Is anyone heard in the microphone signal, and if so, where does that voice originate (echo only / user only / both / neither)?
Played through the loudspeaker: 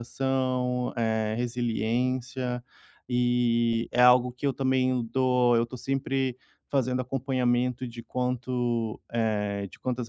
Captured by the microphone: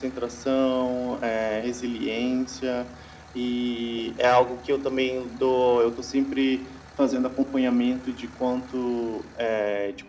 echo only